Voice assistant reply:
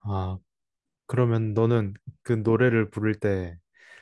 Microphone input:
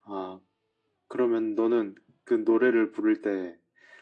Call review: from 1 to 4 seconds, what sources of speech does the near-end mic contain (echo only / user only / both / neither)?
echo only